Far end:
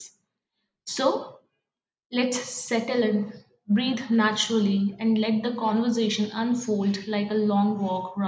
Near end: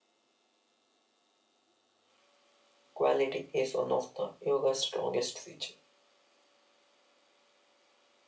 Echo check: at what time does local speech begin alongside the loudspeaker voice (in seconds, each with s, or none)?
2.9 s